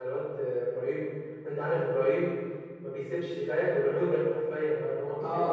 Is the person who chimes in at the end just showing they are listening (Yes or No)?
No